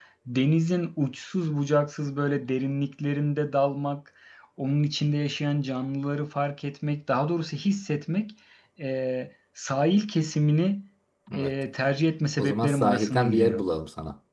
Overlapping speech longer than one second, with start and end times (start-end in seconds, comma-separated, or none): 12.4-13.6